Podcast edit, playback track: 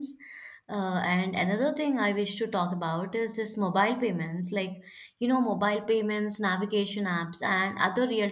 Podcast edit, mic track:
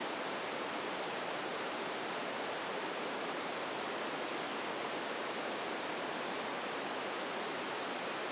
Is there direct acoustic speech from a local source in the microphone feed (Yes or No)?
No